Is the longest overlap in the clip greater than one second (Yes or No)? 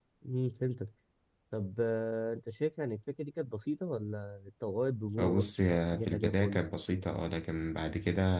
Yes